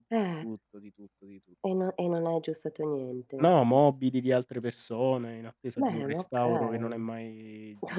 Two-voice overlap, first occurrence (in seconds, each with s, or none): 5.8 s